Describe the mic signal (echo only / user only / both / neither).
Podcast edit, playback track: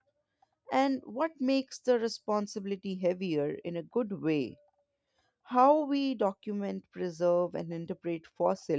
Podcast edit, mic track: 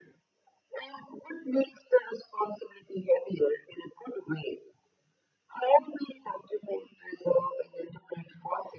echo only